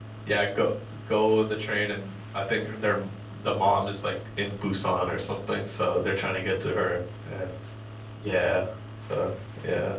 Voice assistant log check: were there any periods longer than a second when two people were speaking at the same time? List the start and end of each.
none

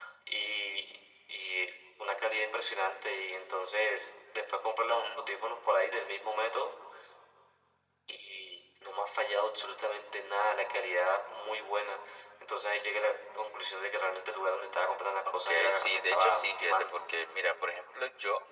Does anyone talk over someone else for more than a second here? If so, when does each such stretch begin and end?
15.4-16.9

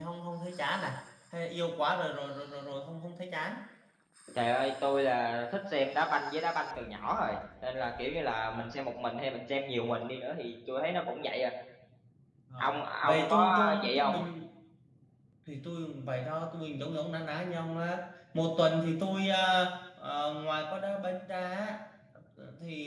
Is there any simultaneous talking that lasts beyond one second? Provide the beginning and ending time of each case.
12.6-14.2

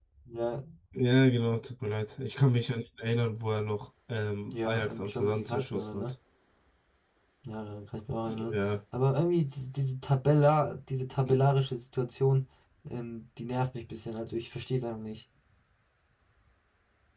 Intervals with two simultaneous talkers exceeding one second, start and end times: 4.5-6.1

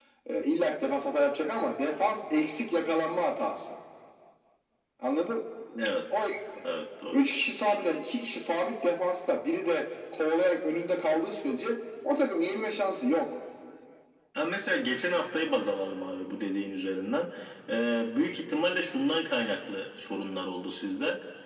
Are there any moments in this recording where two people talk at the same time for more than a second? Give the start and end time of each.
none

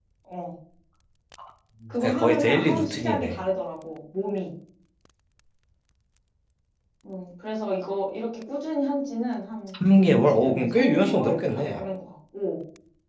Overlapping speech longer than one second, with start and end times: 2.0-3.4, 10.3-11.8

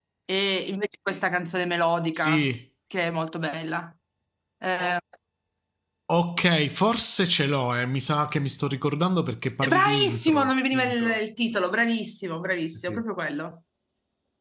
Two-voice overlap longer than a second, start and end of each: 9.7-11.2

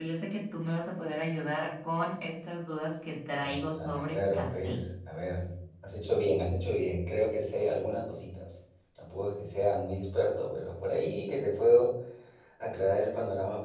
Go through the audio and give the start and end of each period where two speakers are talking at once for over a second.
3.4-4.8

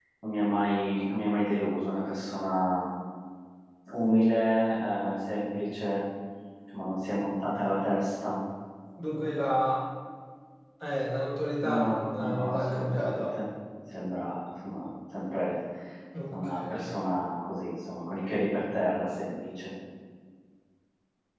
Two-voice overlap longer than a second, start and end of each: 11.6-13.2

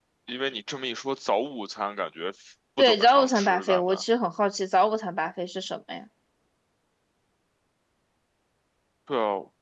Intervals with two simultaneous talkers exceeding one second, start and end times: 2.8-4.0

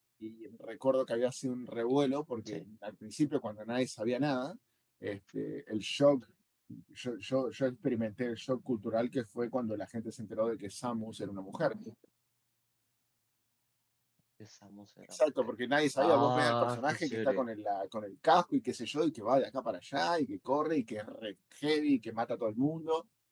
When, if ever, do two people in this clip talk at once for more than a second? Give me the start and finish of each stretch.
16.0-17.4

